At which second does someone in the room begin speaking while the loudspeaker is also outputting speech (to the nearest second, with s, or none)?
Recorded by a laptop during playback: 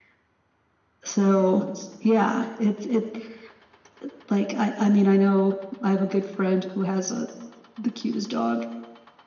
none